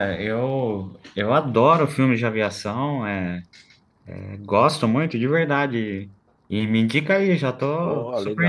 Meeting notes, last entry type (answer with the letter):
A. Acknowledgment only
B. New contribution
B